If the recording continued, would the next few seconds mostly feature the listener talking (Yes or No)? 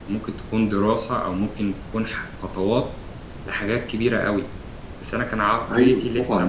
Yes